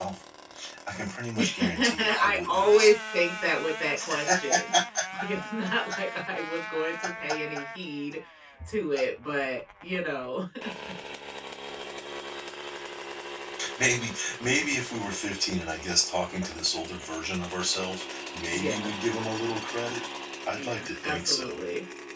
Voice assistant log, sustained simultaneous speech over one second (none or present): present